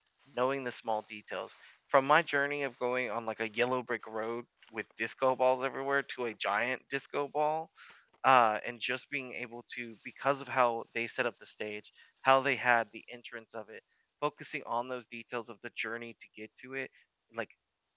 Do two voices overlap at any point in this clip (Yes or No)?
No